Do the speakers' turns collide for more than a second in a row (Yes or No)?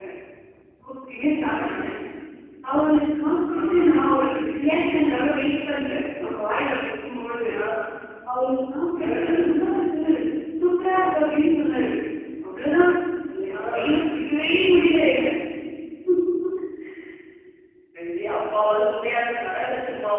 No